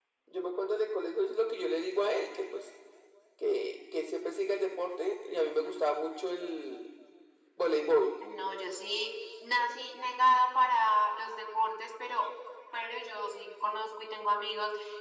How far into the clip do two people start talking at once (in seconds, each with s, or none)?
none